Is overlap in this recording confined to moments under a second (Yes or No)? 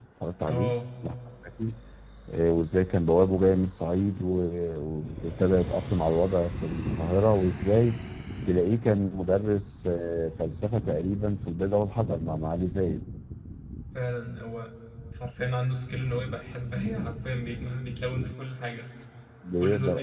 Yes